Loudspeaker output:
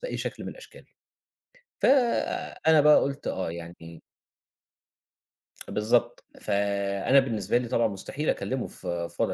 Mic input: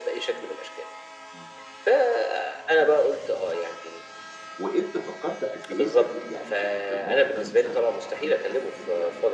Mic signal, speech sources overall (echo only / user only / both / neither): both